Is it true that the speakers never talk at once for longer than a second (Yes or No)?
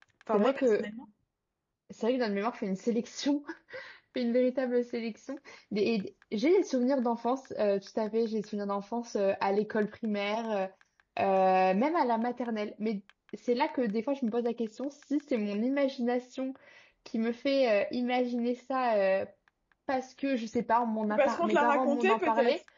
No